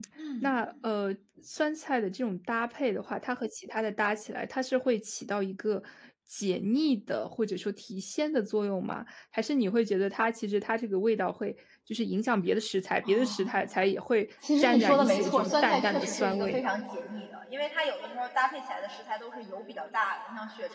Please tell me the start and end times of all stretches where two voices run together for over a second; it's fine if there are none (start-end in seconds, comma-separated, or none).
14.6-16.7